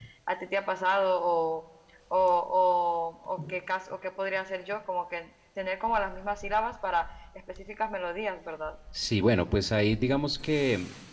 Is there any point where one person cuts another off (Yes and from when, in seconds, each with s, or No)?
No